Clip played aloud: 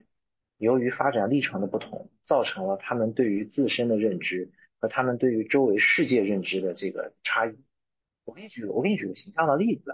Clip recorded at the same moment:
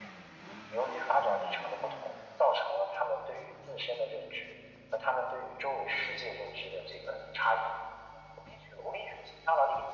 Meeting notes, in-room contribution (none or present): none